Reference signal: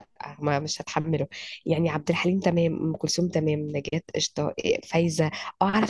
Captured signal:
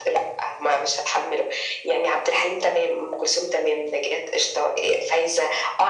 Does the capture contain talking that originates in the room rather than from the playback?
No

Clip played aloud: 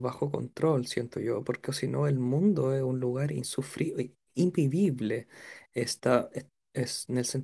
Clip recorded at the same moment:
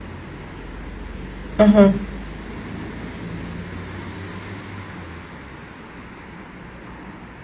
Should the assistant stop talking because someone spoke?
Yes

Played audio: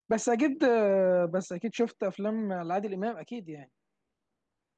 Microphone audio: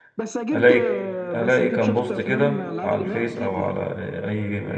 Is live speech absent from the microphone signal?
No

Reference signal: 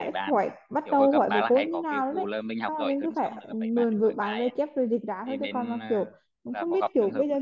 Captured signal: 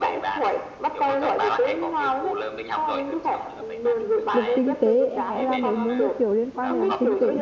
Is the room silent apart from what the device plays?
No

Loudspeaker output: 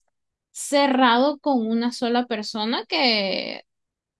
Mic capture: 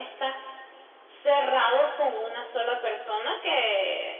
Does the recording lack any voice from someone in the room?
Yes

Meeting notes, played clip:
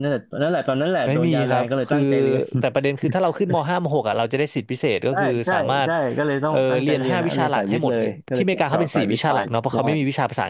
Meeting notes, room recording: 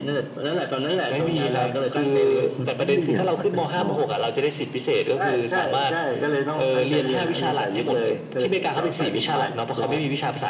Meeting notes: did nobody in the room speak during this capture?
No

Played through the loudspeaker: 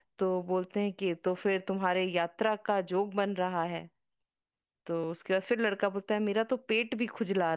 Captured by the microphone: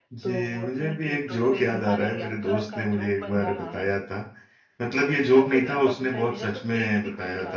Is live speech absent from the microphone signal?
No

